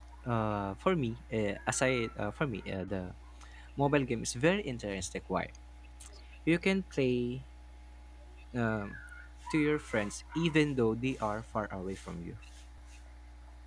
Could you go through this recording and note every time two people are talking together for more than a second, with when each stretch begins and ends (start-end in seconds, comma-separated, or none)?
none